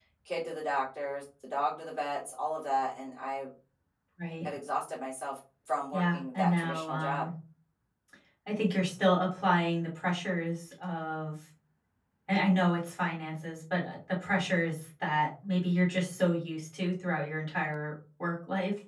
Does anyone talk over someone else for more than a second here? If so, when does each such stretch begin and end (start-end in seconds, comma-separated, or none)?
5.9-7.3